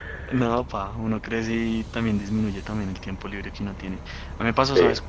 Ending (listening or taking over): listening